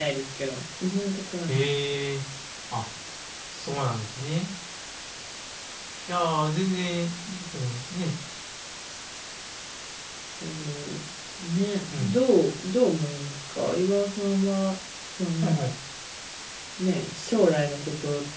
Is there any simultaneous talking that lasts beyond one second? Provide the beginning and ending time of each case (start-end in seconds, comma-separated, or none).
none